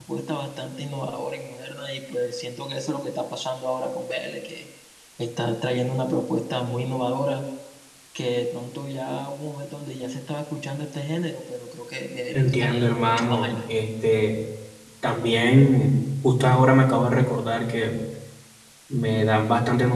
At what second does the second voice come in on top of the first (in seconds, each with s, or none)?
12.3 s